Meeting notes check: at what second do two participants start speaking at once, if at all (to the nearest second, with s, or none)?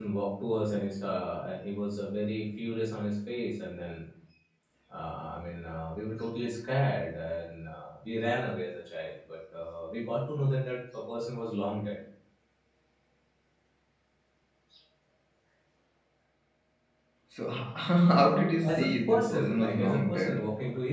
19 s